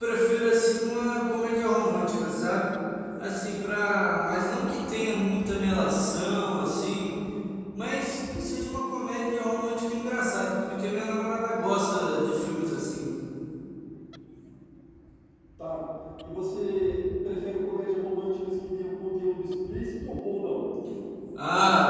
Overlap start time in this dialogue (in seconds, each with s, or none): none